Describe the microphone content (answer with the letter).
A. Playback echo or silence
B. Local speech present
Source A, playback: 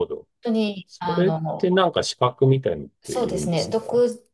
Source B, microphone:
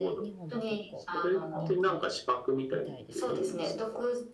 B